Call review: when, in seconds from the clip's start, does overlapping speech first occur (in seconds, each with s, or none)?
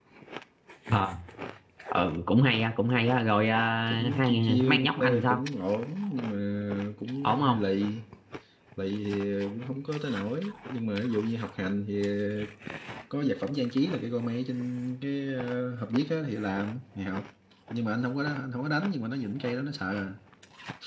3.9 s